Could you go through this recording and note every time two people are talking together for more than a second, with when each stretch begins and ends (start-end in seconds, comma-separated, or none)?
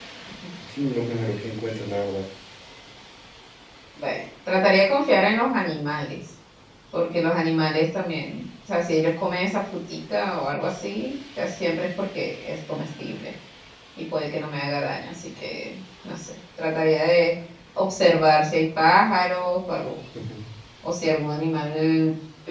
none